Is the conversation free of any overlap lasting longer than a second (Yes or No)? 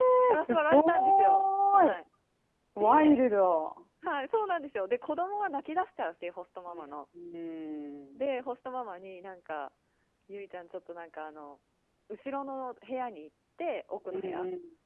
No